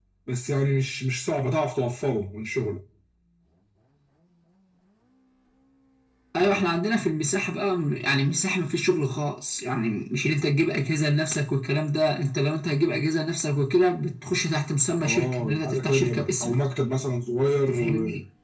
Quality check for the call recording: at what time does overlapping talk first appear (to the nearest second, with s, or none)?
15 s